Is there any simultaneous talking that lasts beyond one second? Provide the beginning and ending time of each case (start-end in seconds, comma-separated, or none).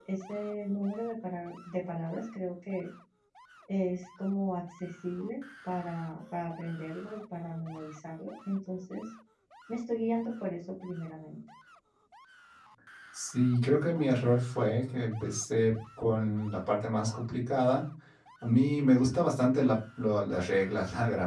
none